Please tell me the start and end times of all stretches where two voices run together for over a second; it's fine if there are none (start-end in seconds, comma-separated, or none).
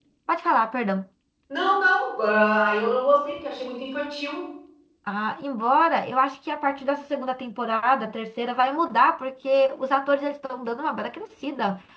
none